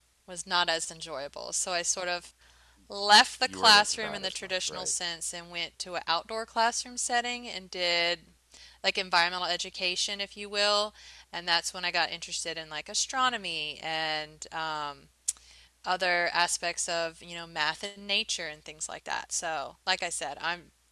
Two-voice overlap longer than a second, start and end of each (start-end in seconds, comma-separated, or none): 3.5-4.9